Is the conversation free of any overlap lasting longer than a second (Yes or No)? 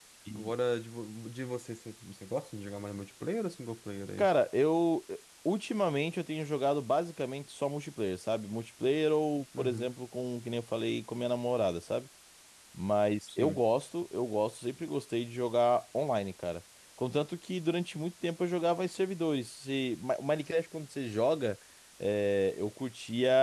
Yes